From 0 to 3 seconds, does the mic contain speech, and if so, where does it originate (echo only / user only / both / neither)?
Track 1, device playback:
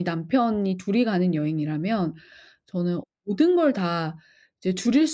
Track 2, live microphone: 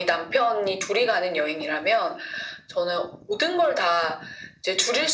echo only